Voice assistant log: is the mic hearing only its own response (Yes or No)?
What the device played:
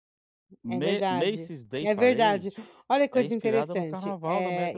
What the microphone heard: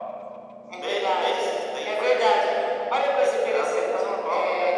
Yes